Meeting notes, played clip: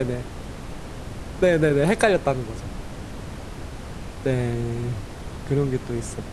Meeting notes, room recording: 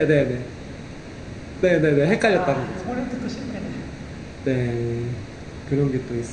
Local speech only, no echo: 아, 요번에도 또 실패네.

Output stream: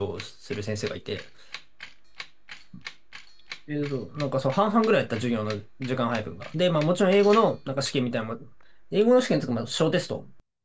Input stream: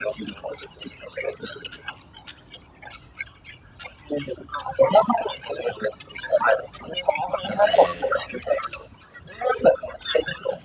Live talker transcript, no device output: なんかね、

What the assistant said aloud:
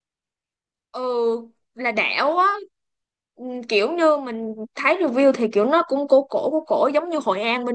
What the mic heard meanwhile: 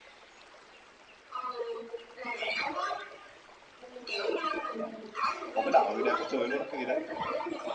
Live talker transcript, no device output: có cái đảo gì đẹp quá trời luôn á cái gì đấy

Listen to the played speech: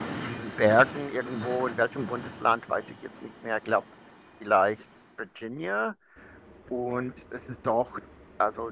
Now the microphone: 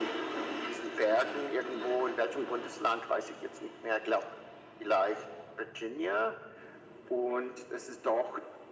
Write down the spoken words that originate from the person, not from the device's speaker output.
none

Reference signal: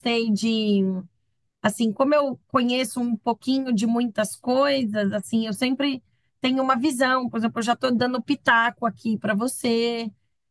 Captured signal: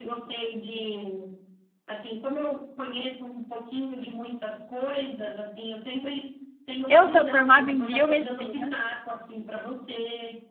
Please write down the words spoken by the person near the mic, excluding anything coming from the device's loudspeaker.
eu sou formada em biomedicina,

